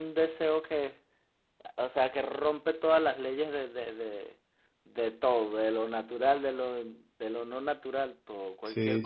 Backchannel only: No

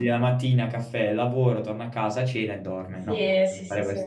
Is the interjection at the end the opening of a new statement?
Yes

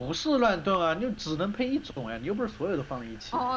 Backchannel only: No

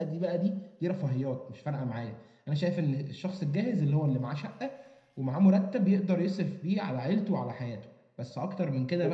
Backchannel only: Yes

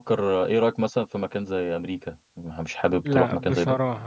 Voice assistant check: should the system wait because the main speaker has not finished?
No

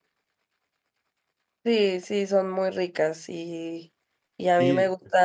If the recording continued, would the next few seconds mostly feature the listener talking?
No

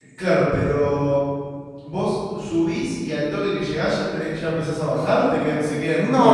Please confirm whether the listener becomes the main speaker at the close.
Yes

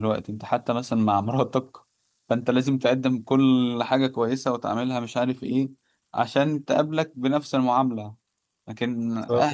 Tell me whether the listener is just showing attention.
Yes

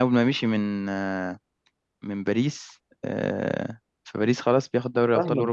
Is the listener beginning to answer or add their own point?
Yes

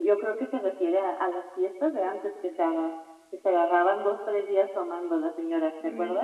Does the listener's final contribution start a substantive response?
Yes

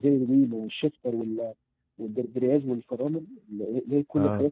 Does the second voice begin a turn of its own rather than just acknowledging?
No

